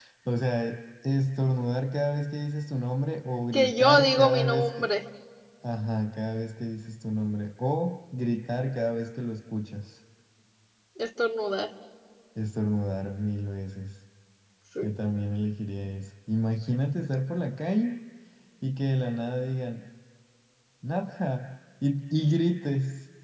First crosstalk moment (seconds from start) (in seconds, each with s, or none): 3.5 s